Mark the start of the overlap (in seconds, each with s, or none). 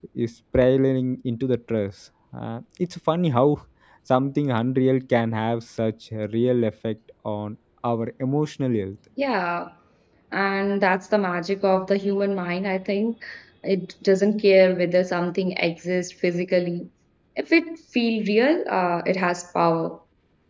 none